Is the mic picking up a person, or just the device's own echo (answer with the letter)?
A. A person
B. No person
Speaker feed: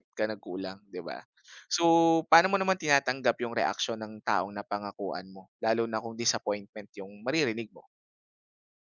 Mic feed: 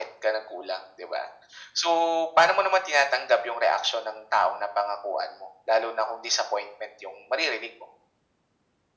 B